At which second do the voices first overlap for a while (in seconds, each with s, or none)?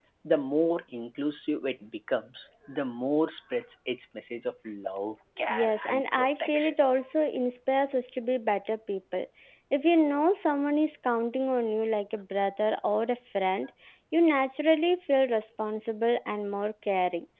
5.4 s